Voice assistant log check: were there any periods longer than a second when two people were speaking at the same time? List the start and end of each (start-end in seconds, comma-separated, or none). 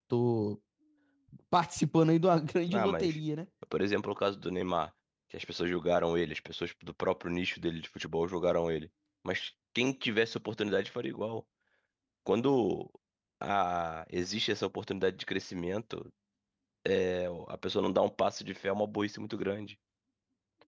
none